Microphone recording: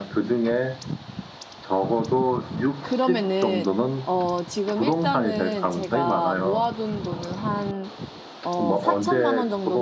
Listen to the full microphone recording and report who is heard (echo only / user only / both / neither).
both